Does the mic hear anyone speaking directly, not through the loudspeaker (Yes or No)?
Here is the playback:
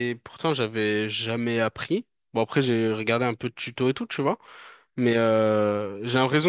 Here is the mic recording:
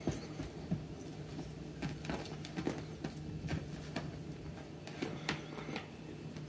No